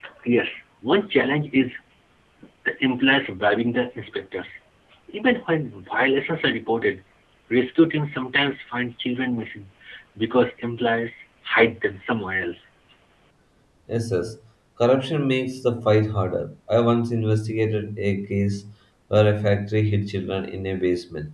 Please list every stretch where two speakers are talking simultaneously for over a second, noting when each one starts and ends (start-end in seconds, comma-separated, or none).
none